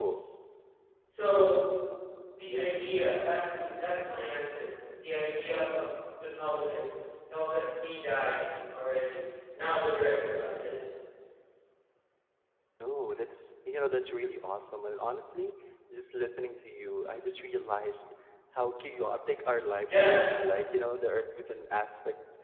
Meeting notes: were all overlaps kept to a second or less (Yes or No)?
Yes